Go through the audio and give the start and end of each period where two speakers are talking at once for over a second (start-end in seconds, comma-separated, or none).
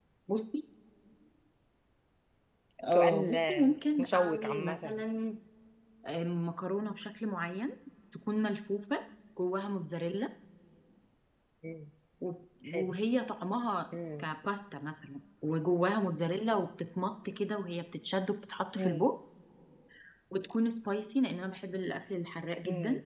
2.9-5.0